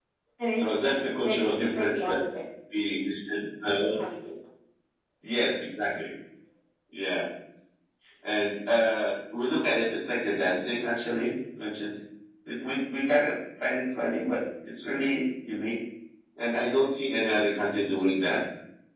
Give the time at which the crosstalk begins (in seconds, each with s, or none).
0.6 s